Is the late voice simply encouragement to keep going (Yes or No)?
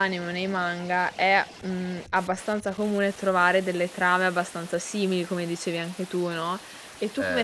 Yes